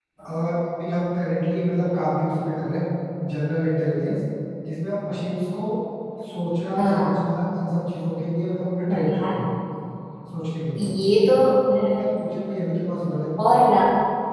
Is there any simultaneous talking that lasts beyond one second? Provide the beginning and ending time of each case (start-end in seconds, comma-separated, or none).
none